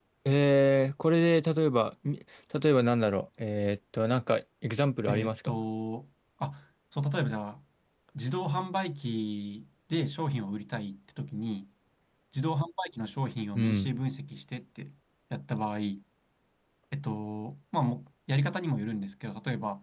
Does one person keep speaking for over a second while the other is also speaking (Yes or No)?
No